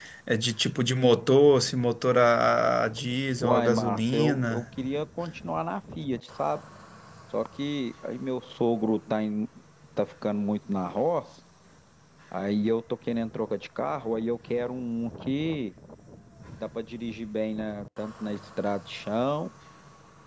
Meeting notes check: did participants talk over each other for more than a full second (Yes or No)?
Yes